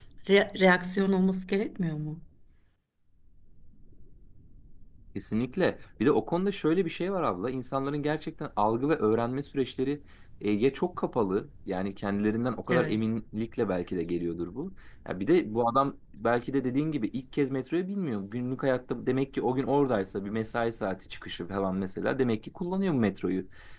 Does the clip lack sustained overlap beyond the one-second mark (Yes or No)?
Yes